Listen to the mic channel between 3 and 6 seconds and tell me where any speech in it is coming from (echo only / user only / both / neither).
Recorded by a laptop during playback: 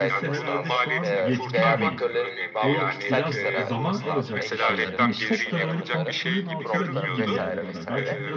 both